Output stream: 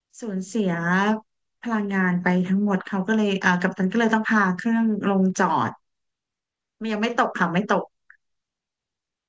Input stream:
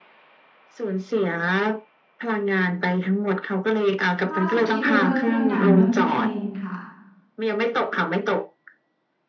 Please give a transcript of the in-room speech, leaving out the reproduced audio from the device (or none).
ล่าสุดที่ดูก็คือหนังเรื่องเพลนค่ะ